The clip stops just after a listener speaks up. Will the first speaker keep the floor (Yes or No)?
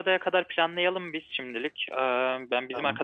Yes